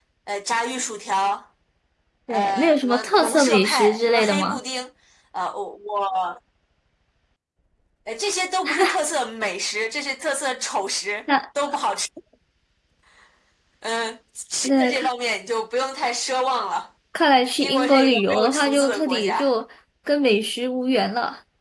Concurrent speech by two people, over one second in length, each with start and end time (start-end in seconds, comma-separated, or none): 2.3-4.6, 17.6-19.5